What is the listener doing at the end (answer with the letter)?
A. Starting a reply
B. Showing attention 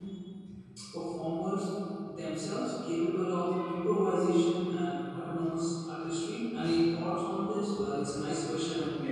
A